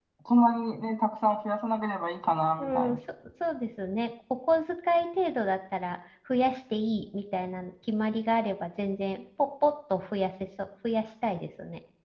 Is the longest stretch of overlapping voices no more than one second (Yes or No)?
Yes